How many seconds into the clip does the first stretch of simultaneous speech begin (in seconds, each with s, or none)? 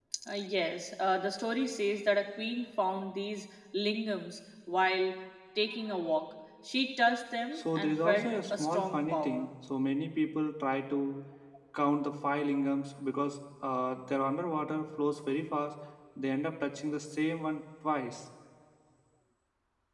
7.5 s